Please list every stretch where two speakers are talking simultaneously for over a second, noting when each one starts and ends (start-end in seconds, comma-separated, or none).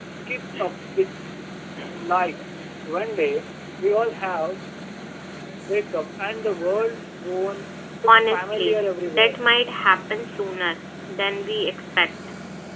8.1-9.4